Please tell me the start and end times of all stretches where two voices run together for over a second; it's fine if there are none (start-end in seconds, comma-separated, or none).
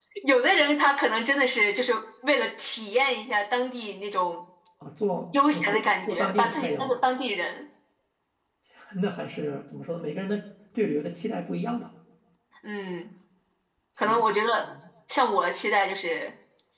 5.5-6.9